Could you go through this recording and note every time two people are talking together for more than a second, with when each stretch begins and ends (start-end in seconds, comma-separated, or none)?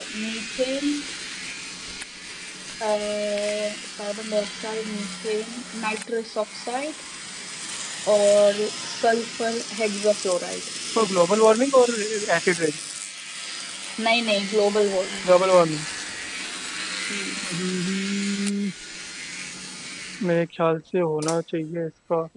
none